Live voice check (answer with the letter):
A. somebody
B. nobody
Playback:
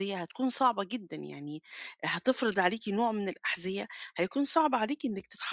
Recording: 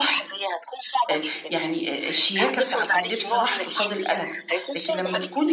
A